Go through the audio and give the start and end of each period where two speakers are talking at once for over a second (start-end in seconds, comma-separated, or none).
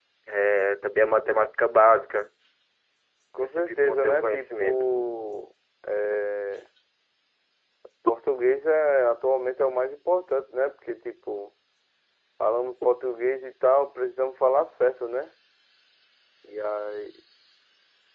3.4-4.8